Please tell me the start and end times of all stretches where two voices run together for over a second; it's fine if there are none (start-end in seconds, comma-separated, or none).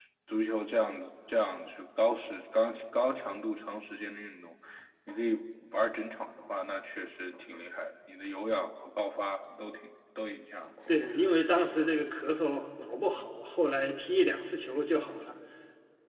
none